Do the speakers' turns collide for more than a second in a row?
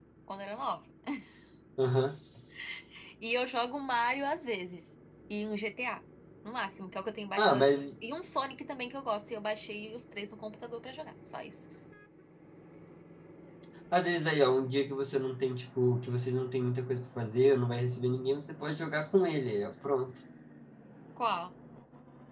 No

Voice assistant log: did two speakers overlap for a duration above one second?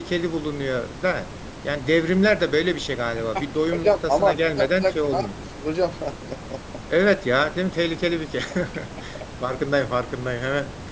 Yes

